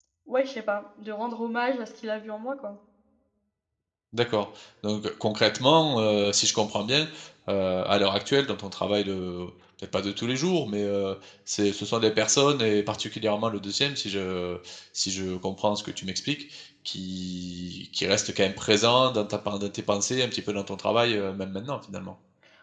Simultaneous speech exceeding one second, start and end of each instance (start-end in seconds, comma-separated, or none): none